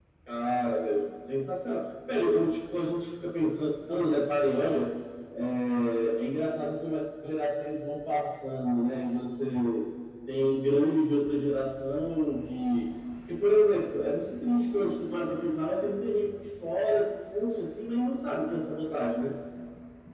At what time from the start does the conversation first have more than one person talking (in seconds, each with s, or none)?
none